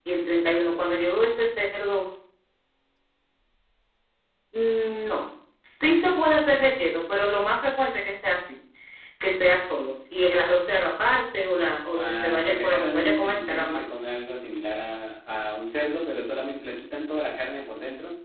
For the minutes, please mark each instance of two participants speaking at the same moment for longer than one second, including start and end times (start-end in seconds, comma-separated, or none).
12.0-13.8